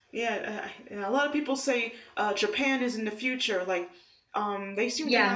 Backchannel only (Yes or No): Yes